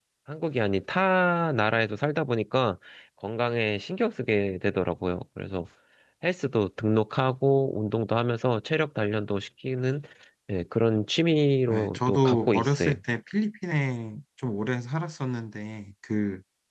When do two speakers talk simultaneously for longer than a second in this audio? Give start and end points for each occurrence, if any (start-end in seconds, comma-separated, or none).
11.7-12.9